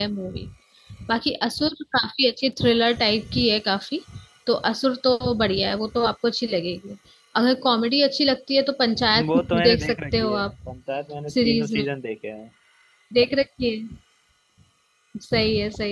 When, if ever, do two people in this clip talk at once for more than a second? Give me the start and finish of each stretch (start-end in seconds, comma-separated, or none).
9.3-10.6